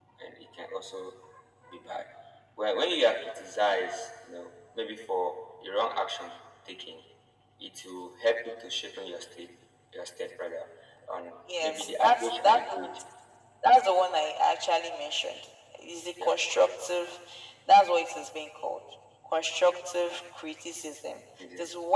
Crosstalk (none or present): present